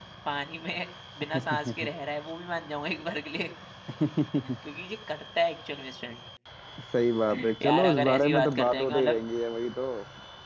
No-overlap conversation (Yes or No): No